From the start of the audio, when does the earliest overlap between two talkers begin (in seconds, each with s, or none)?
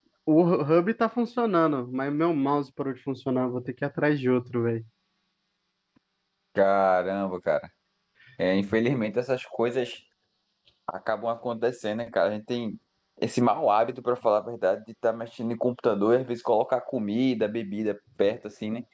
none